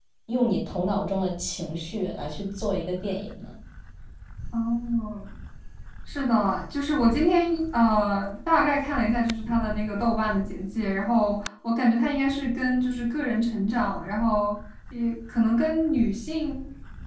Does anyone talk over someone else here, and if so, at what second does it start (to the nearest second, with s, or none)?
none